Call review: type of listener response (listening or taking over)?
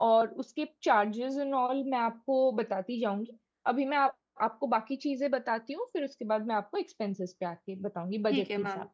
taking over